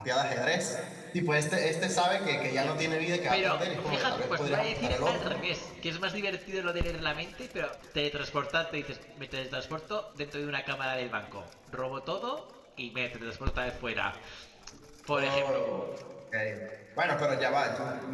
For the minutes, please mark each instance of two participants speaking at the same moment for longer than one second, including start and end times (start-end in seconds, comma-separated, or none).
3.3-5.3